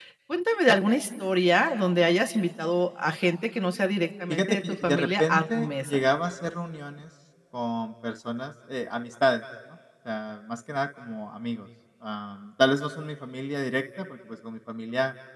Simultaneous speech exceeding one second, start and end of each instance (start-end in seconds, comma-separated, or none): 4.3-6.0